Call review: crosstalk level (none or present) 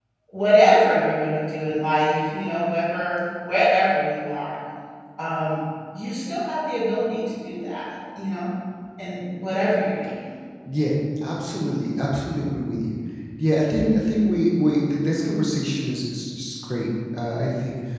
none